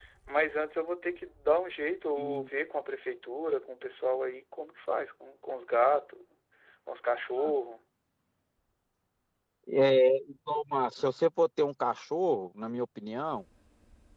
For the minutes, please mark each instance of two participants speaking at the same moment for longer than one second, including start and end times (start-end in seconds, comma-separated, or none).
none